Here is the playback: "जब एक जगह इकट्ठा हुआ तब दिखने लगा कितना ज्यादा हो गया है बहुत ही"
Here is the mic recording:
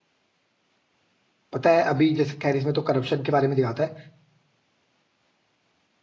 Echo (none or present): none